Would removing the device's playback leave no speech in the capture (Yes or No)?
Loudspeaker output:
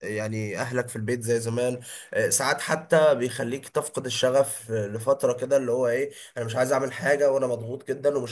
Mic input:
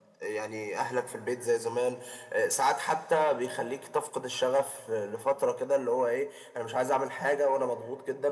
Yes